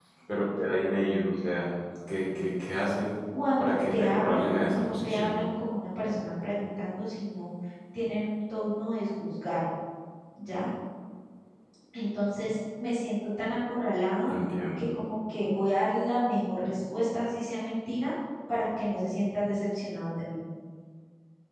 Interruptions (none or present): present